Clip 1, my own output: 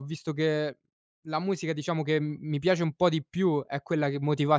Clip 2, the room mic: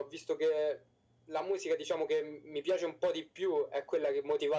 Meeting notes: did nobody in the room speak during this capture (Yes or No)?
Yes